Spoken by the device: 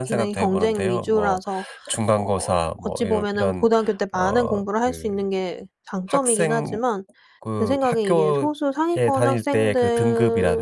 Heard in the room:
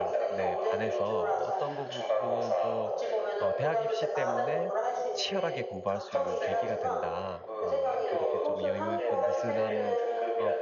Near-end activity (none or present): present